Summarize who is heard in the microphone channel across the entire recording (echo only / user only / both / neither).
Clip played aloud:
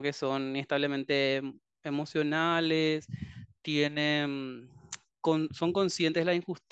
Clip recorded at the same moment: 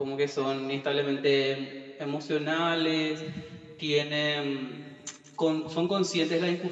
echo only